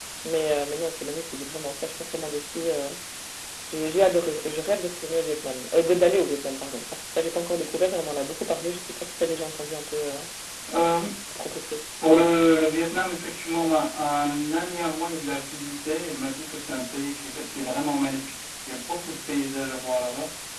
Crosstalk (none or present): none